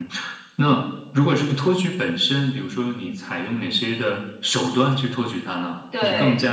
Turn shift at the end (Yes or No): No